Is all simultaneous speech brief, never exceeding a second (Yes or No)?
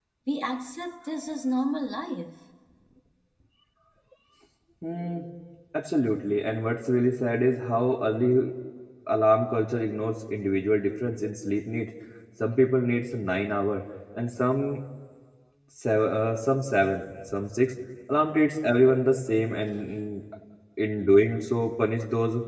Yes